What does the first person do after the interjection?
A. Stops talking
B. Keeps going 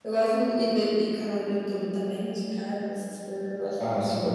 A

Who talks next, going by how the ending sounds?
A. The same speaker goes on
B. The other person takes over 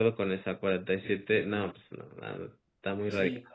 B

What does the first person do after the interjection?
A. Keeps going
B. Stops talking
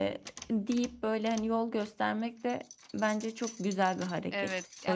B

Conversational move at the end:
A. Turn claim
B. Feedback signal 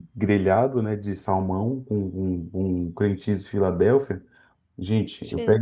B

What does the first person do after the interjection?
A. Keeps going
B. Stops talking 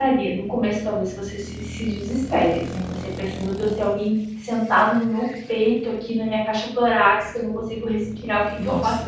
A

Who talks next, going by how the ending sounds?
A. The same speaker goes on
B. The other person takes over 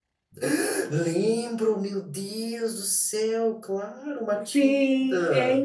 B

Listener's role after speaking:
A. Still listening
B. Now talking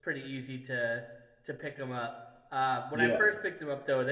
A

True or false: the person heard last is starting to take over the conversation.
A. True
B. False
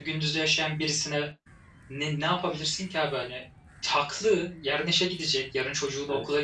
B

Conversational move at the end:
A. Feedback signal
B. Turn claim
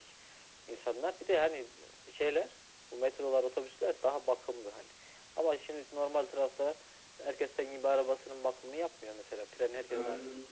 A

